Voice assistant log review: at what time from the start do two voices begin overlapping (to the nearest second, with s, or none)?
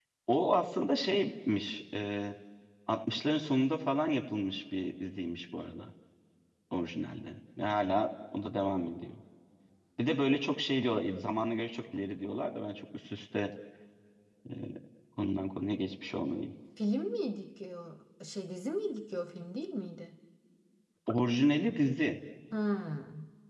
none